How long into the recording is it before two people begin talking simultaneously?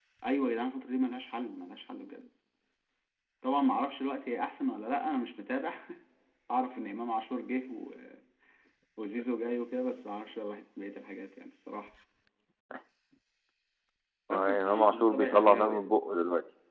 14.3 s

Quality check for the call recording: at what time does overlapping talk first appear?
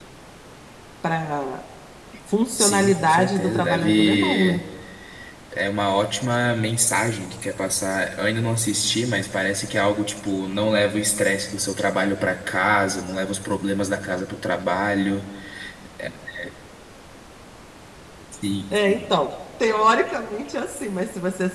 2.6 s

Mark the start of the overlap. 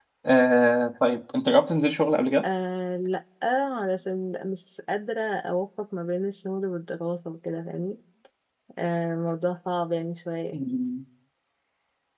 none

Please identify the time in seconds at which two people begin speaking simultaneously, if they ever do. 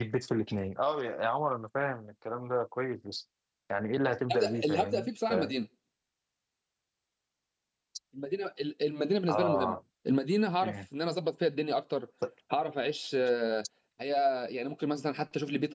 4.3 s

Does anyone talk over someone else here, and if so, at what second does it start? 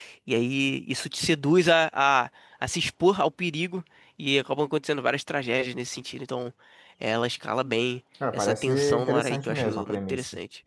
8.2 s

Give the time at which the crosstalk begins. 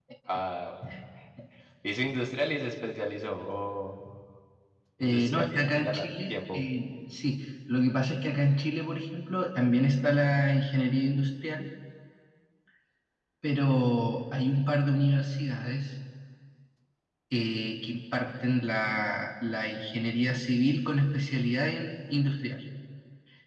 5.0 s

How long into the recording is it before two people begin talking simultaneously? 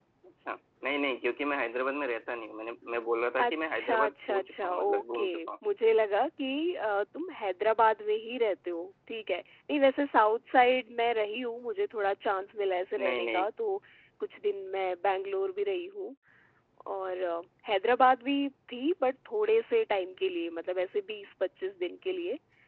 3.4 s

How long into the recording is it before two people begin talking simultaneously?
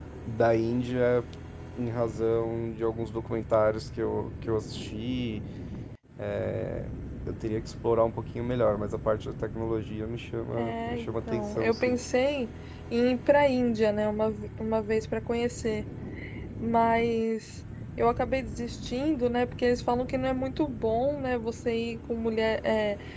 10.5 s

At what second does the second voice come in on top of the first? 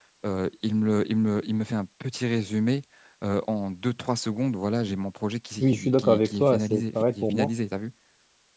5.6 s

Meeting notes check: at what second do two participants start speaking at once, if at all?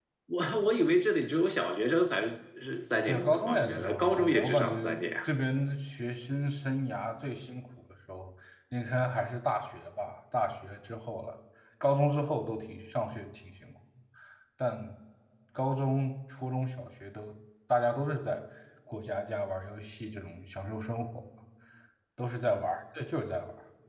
3.1 s

